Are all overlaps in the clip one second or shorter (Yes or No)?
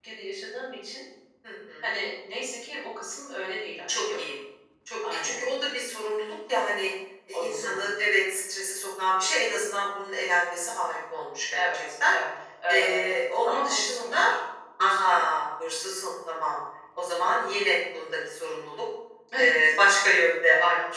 No